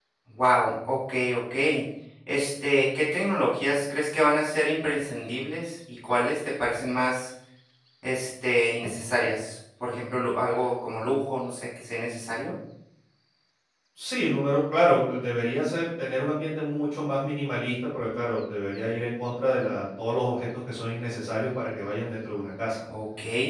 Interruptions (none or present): none